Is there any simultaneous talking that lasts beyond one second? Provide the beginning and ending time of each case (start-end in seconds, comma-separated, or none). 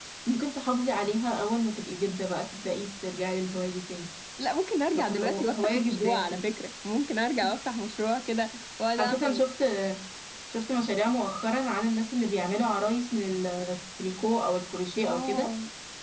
5.0-6.4